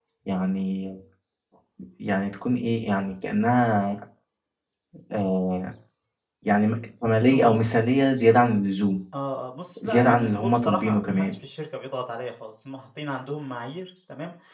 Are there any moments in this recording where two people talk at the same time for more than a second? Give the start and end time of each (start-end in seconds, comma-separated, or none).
9.8-11.3